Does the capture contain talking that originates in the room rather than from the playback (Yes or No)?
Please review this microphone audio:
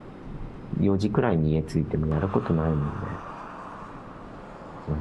Yes